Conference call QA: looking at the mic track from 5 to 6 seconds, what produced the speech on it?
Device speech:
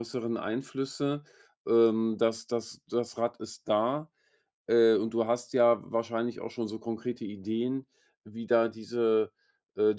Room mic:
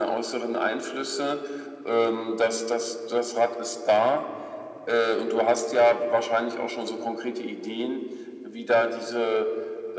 echo only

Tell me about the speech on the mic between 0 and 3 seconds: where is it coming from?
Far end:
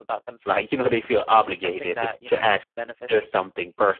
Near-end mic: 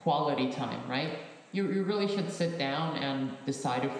user only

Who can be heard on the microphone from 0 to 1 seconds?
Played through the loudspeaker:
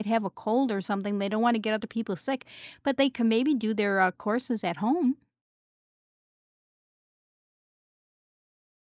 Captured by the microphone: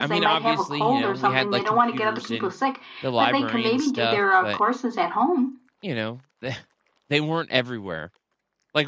both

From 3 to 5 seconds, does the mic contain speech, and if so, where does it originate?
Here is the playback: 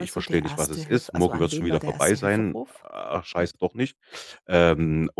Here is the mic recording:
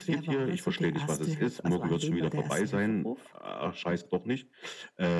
echo only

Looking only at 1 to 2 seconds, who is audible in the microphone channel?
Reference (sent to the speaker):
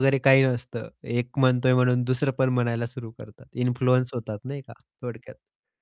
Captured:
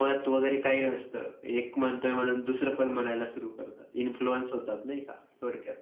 echo only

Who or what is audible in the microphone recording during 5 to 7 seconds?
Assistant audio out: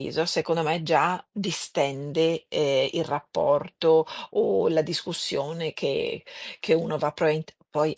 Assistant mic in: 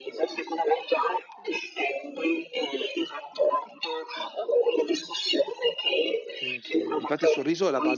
both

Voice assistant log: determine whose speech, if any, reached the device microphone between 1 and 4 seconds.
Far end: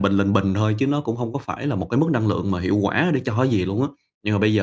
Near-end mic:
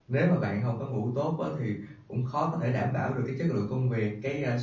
user only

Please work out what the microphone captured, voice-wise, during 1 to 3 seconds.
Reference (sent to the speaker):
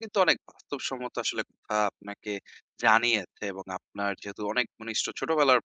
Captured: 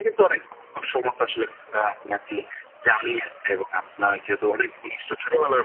echo only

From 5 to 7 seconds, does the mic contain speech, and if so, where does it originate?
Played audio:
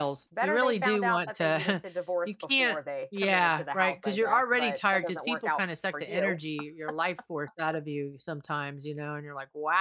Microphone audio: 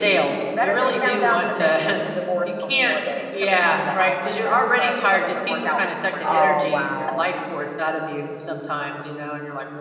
both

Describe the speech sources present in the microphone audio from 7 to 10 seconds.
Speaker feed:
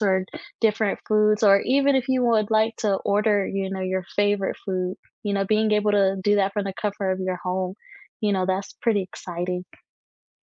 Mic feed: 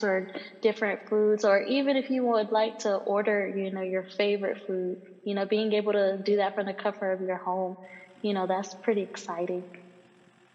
echo only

